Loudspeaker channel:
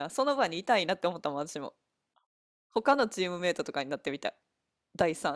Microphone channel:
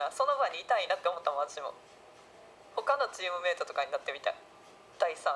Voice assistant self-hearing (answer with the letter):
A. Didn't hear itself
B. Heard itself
B